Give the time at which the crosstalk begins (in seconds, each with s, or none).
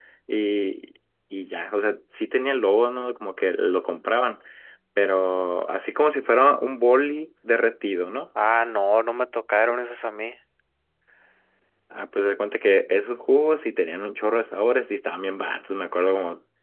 none